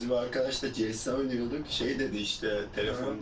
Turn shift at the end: No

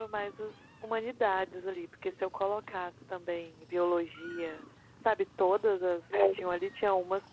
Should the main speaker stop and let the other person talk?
No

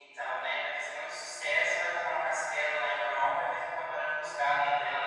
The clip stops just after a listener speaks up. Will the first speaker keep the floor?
No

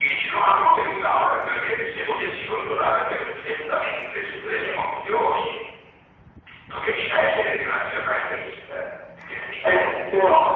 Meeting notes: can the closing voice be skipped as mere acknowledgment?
No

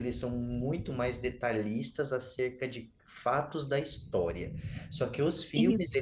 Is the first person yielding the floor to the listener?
No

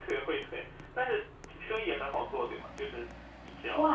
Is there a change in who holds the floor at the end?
Yes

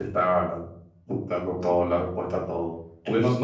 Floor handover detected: No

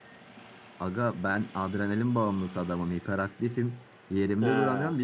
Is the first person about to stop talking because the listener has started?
No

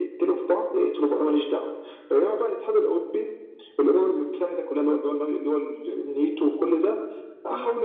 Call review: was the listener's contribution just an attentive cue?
Yes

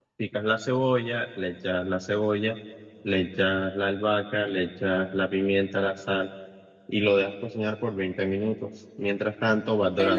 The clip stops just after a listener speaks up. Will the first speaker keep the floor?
No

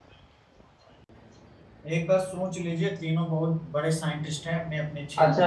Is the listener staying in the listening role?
No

